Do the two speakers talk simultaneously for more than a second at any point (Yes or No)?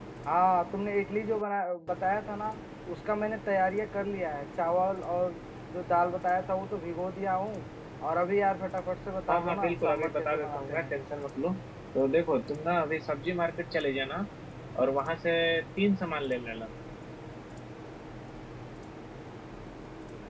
Yes